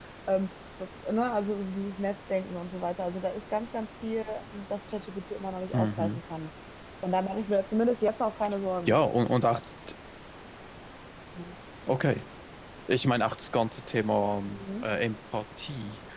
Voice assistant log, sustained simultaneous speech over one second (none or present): none